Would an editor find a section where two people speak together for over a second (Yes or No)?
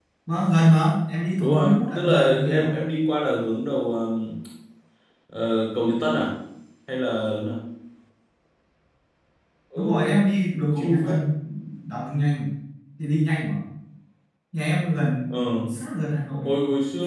Yes